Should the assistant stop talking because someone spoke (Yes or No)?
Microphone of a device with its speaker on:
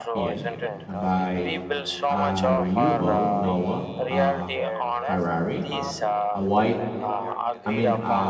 Yes